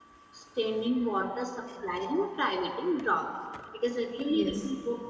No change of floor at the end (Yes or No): Yes